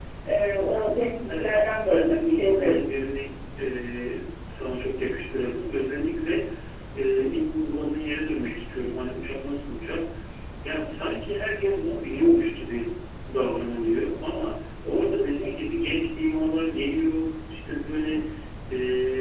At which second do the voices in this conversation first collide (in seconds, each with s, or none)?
1.2 s